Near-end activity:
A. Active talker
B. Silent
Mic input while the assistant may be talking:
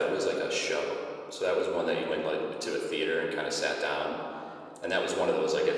B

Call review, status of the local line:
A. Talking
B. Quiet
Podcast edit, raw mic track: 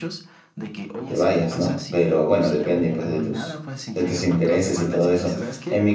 A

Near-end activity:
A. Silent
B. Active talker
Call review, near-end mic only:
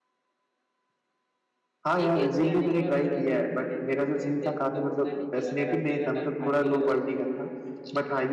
B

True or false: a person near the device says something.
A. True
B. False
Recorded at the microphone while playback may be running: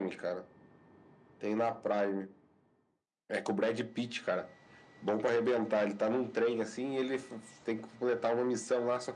B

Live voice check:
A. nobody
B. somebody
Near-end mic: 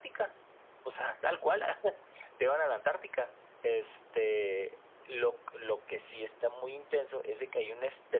A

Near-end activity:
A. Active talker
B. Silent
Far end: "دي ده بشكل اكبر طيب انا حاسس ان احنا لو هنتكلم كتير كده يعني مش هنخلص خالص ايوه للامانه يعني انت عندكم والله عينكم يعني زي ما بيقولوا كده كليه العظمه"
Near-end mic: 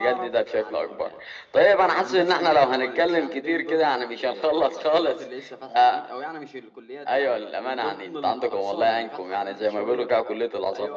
A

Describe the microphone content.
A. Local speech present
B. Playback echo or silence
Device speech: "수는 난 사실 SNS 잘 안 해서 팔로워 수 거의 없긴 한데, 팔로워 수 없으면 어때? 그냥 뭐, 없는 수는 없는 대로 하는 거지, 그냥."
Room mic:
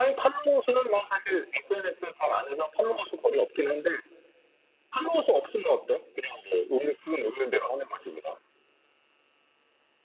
B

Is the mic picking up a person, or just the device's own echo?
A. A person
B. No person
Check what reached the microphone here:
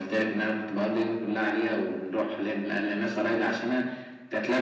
B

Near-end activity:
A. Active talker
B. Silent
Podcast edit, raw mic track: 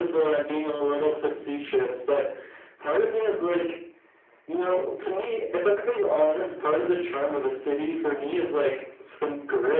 B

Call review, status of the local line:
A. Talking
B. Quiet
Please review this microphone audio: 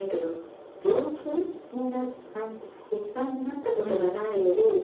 A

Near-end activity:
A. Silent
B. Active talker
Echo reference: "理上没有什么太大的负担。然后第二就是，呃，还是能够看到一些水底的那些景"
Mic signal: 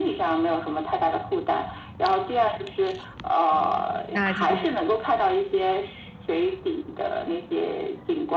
B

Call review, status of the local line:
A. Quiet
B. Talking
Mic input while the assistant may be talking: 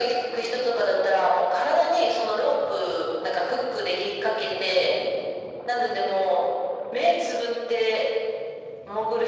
A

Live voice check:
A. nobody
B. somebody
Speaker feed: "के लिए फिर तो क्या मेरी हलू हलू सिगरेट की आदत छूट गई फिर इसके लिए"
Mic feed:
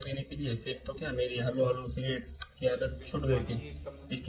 B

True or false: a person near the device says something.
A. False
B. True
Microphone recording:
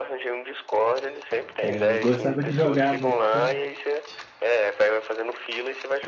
B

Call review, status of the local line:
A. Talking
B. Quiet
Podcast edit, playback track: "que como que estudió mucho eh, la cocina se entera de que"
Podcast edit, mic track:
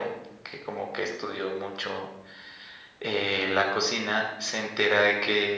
B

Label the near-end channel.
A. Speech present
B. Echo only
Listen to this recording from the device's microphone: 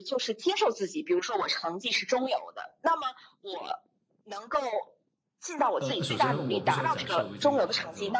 A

